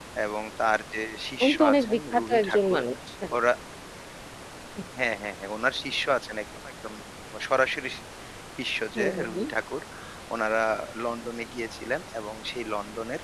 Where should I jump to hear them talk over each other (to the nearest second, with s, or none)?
1 s